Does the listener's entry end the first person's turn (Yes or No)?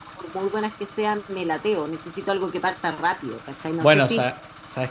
Yes